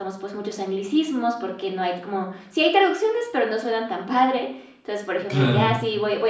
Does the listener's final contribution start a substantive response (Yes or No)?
No